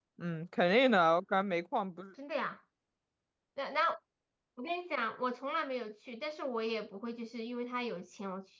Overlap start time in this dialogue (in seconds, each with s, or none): none